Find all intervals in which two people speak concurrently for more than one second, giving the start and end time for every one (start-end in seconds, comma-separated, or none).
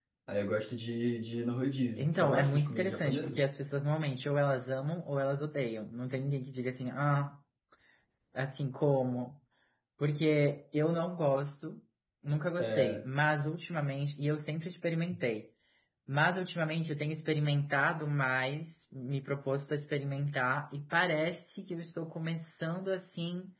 2.0-3.4